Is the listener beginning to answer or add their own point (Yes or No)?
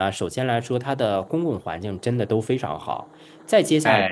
No